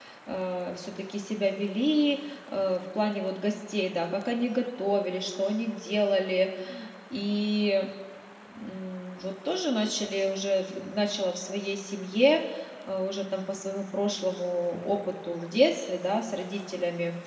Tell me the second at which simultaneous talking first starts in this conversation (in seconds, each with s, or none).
none